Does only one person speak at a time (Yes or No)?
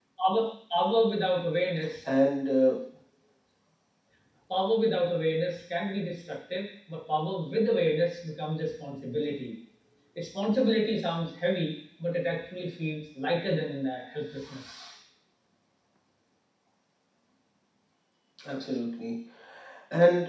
Yes